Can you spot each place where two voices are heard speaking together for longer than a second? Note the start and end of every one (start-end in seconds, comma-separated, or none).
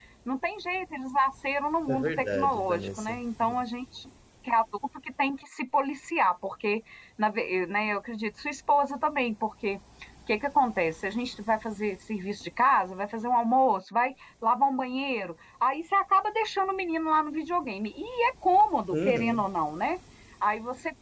1.9-3.2